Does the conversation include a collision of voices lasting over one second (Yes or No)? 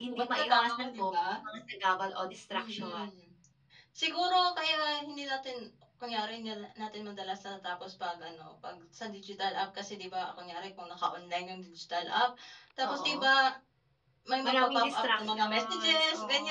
Yes